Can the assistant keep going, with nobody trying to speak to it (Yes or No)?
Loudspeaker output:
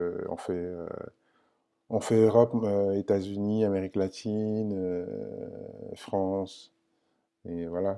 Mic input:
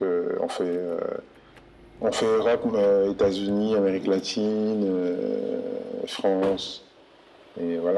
Yes